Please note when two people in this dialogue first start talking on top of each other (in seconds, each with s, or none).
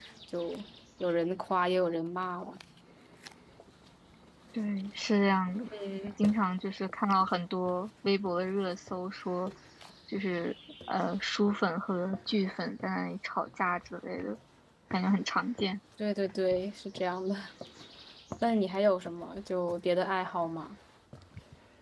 none